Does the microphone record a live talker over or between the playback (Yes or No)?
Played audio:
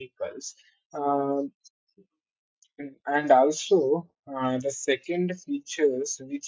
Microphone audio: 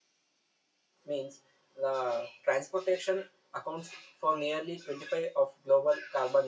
Yes